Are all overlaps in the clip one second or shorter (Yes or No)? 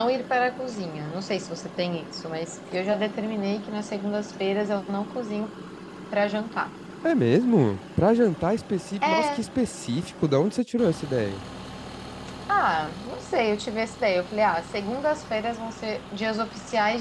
Yes